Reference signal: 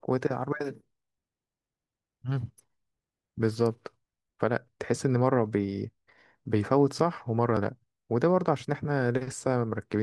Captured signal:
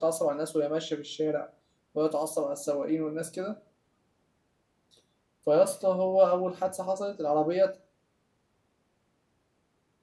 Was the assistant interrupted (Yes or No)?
Yes